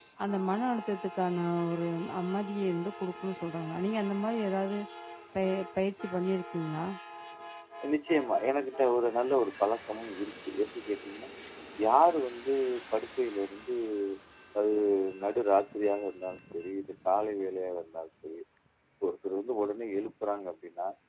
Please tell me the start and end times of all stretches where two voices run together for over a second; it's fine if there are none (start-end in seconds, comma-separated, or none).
none